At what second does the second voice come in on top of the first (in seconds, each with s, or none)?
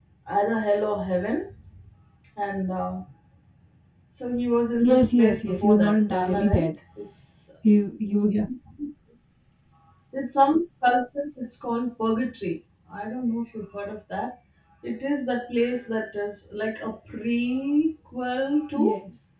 4.8 s